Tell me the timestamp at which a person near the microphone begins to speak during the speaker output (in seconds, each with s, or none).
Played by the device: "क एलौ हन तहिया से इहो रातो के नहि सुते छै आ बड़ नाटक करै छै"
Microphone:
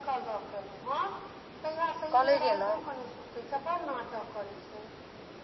2.2 s